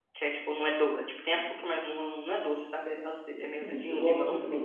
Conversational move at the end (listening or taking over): taking over